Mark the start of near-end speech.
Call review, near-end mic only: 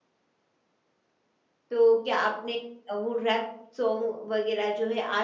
2 s

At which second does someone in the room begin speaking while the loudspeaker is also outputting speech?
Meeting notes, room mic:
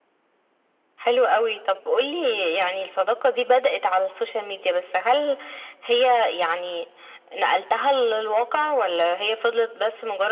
none

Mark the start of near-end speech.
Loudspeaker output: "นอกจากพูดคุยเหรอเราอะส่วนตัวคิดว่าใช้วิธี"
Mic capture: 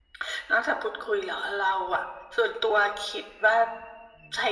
none

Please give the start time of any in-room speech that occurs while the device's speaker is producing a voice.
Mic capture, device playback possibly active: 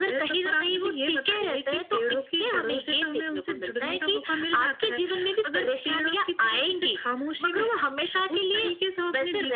none

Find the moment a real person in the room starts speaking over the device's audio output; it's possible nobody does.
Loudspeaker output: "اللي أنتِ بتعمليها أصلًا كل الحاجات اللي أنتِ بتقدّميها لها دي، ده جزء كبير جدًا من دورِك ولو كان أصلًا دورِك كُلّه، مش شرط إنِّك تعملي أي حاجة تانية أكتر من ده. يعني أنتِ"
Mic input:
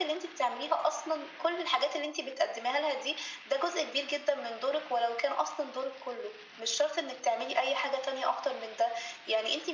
none

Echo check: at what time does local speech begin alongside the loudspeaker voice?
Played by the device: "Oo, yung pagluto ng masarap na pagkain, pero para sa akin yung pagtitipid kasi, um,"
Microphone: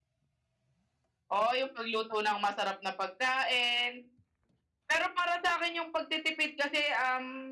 none

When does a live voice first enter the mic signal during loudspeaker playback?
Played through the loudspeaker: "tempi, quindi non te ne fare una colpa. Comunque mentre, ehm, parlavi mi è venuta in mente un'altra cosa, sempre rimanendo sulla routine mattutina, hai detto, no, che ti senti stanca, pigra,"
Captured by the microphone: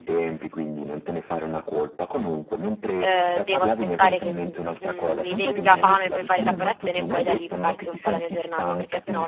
3 s

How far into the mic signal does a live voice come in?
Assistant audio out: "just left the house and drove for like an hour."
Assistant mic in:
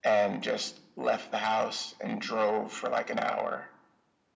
none

